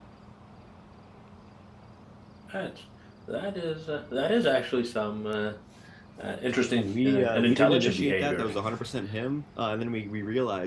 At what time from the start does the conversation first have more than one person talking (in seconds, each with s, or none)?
6.8 s